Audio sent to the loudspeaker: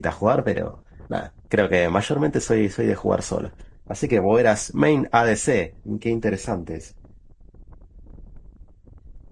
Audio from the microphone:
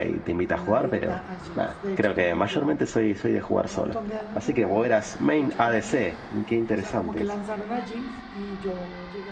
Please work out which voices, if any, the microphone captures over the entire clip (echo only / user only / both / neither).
both